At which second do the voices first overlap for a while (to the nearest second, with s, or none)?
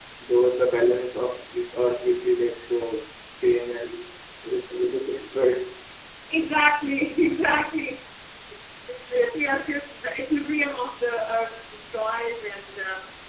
none